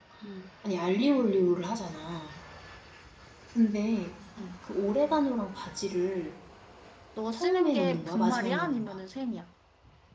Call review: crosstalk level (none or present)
present